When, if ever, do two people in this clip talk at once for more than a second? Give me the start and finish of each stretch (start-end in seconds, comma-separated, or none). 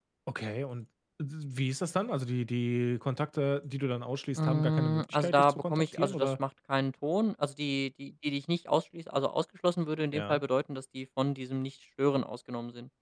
4.3-6.3